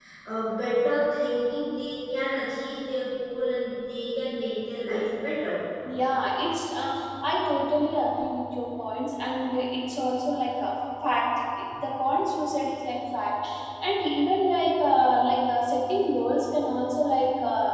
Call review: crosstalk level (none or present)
none